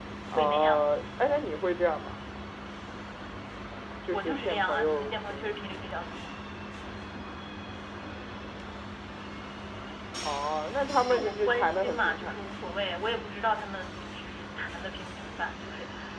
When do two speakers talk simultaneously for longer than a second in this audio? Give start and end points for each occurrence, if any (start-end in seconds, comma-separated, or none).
4.1-5.9, 11.1-12.4